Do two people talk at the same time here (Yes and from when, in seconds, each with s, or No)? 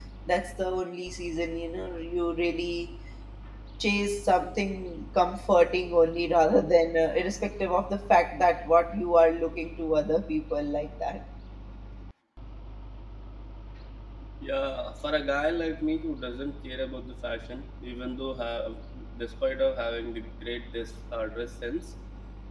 No